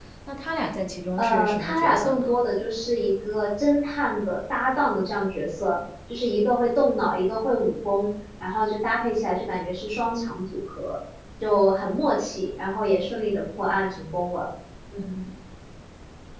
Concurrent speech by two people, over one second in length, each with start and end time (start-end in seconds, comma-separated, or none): 1.2-2.4